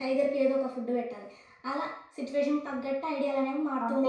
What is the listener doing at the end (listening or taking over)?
taking over